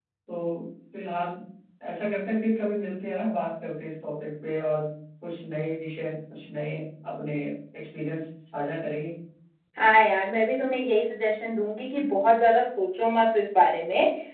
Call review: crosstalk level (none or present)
none